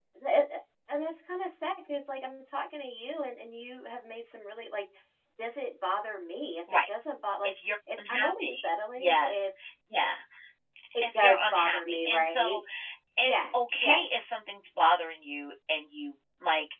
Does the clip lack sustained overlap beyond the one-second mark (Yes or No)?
No